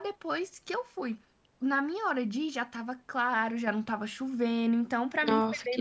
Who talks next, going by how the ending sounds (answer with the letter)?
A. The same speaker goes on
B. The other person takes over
B